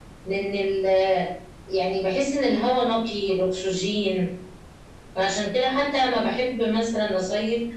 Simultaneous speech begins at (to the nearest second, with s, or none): none